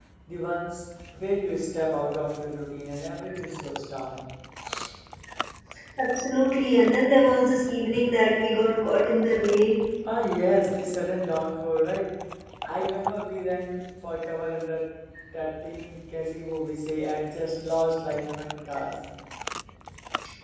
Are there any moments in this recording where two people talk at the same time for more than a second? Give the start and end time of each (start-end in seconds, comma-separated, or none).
none